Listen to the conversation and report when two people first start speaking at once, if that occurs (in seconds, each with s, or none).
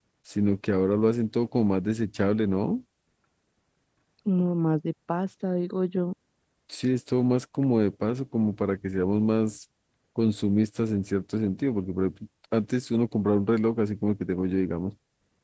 none